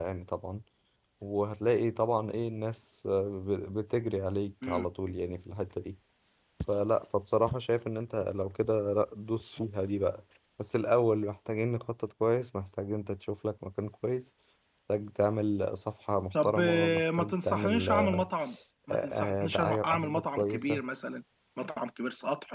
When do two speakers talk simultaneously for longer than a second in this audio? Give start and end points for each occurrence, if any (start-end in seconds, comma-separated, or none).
16.3-18.3, 18.9-20.8